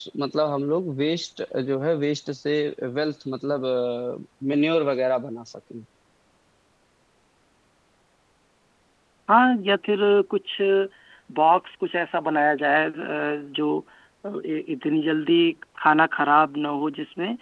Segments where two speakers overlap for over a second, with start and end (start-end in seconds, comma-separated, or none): none